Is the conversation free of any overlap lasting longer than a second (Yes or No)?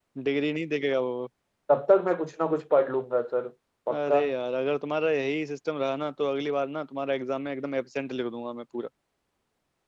Yes